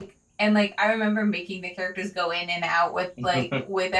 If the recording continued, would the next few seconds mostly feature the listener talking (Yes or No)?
No